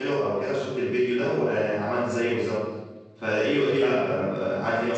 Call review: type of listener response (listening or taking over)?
listening